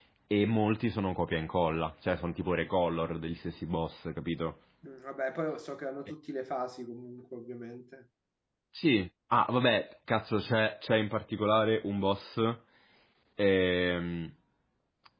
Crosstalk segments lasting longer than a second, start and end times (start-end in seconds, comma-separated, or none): none